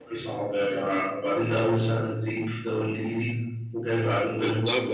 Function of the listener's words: taking over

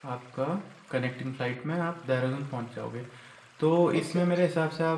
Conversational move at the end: listening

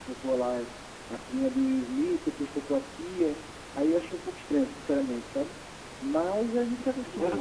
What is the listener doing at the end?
listening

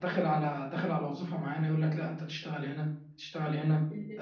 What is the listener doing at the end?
listening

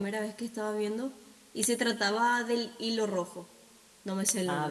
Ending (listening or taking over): taking over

